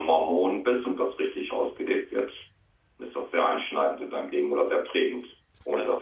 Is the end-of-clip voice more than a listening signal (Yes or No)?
No